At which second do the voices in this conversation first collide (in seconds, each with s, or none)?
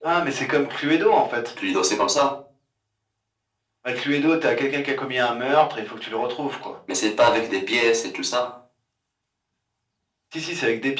none